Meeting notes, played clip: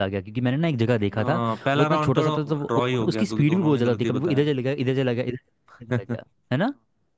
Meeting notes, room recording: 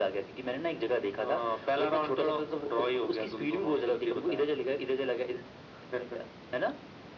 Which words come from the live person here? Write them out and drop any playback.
none

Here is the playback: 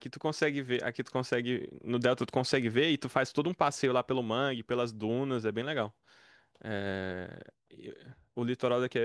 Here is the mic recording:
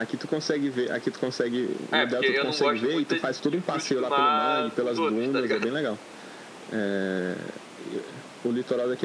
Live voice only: É, porque eu não gosto muito de de frutos do mar os outros, tá ligado?

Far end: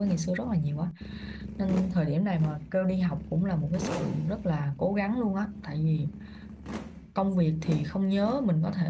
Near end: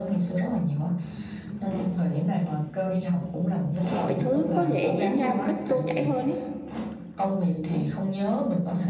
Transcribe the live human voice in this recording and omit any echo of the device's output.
mọi thứ có thể diễn ra một cách trôi chảy hơn ấy

